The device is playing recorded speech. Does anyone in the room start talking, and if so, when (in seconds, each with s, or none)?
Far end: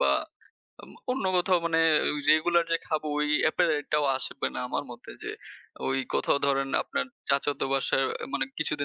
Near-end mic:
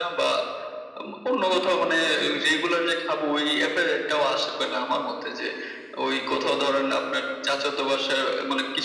none